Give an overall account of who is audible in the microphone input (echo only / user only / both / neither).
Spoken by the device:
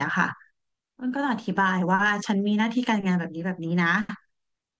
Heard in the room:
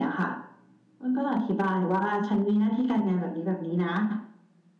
echo only